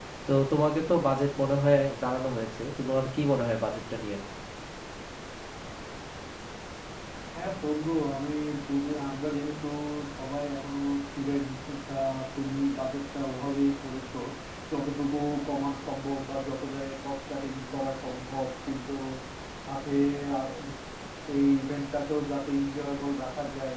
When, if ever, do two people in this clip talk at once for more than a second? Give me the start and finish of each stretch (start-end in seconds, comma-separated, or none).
none